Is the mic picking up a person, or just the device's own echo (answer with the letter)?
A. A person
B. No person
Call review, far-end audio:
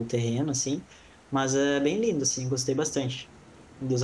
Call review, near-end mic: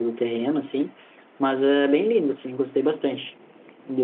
B